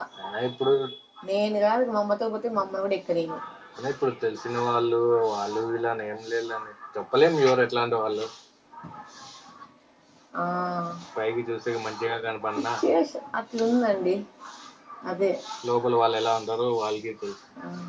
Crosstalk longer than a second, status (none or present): none